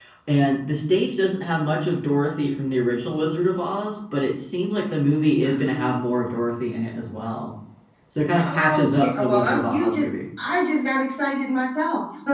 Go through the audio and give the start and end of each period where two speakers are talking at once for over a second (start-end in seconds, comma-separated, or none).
8.4-10.1